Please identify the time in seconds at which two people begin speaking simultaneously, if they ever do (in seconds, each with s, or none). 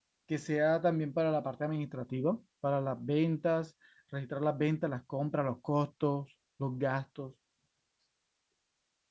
none